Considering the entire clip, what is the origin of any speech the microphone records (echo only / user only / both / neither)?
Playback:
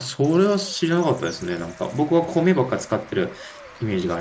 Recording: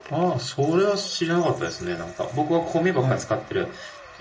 both